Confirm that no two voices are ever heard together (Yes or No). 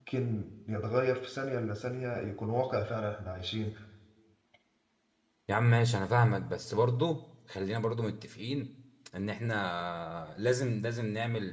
Yes